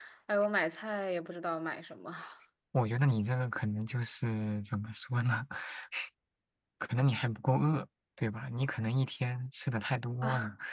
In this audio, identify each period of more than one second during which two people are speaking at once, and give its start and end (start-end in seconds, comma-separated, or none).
none